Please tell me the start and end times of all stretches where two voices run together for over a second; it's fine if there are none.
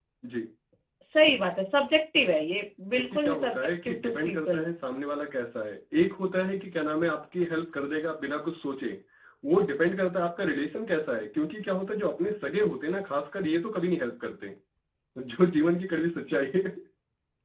2.9-4.7

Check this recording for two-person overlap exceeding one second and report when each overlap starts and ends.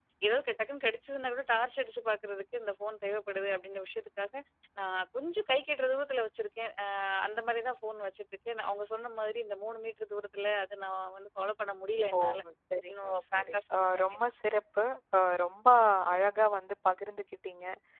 12.9-14.3

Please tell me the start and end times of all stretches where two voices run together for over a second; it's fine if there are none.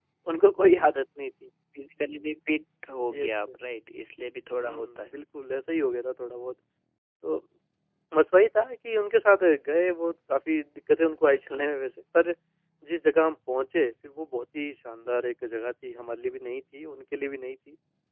none

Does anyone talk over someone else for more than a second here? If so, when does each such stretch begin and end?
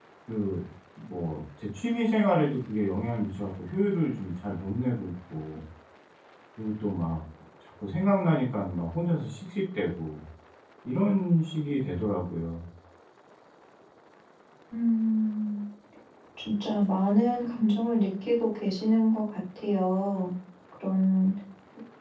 none

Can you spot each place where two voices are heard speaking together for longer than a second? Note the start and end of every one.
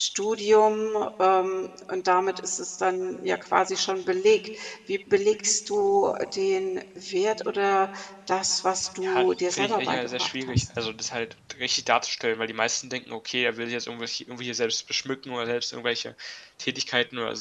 9.0-10.6

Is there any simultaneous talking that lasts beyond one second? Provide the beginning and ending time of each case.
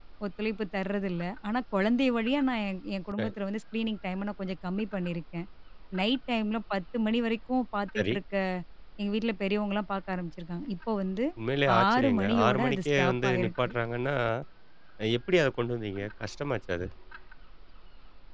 11.8-13.7

